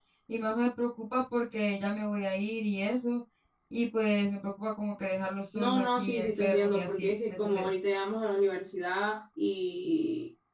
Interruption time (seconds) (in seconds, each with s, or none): 5.5 s